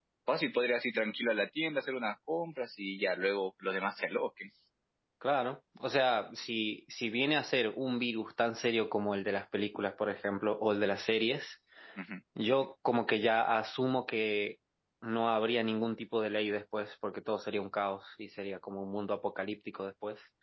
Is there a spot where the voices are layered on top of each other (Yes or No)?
No